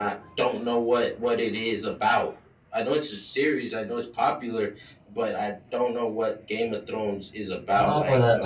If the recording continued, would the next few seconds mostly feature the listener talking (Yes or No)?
Yes